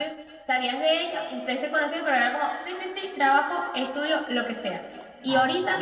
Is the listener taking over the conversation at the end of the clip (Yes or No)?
No